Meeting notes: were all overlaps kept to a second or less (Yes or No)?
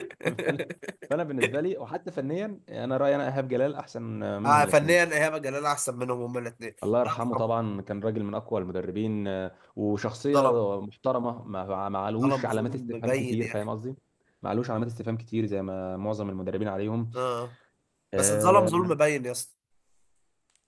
No